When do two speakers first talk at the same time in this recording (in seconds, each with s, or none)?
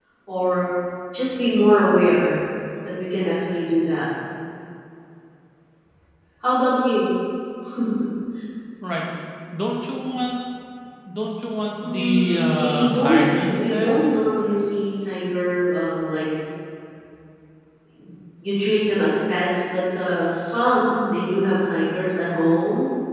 11.8 s